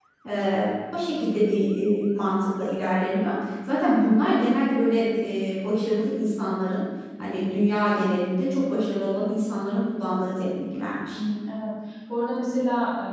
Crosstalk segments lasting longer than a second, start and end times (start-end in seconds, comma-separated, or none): none